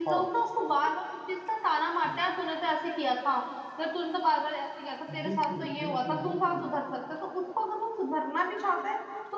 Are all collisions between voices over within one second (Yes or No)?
No